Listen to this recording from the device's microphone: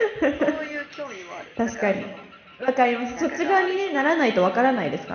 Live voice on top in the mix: Yes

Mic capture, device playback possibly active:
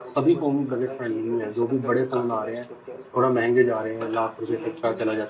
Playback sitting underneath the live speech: Yes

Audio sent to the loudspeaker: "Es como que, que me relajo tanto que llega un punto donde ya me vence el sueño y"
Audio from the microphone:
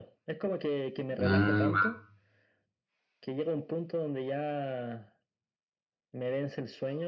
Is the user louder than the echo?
Yes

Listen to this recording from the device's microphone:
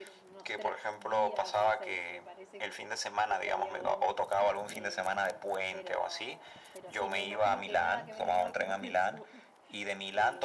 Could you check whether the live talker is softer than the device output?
Yes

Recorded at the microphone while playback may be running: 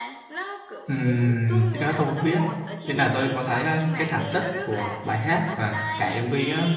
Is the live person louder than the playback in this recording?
Yes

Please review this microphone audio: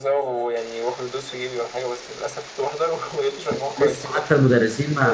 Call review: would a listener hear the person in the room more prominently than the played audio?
Yes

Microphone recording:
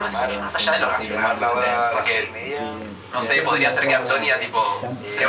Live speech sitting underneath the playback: Yes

